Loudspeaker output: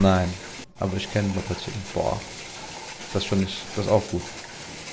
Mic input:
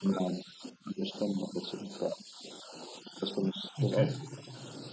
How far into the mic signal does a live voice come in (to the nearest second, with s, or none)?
4 s